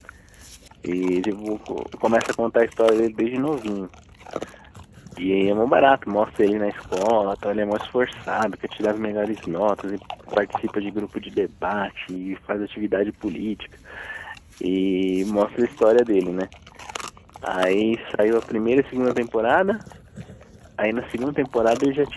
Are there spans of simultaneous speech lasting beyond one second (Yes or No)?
No